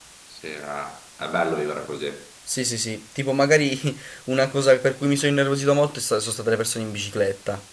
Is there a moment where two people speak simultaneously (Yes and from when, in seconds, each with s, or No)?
No